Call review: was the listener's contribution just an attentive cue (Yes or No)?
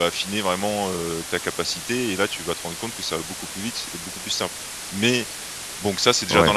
No